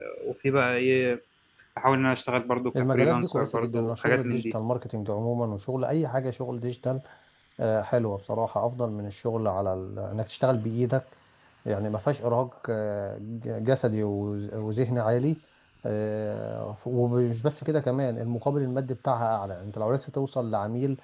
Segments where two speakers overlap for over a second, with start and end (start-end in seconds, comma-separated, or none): 2.8-4.5